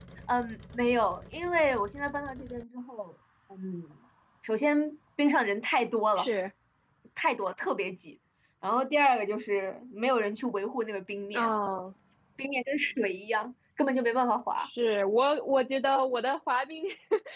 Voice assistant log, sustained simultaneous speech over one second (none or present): none